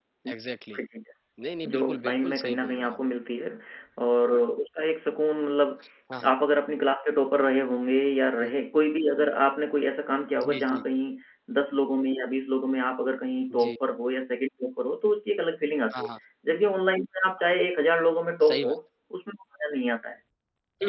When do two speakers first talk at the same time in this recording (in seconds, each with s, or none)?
1.6 s